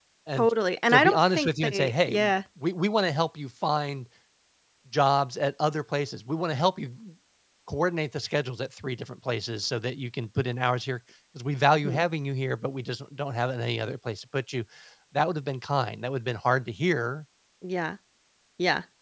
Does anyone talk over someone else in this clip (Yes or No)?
Yes